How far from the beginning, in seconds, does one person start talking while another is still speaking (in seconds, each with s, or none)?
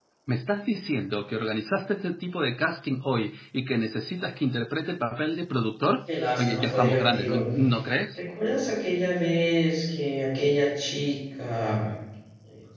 6.1 s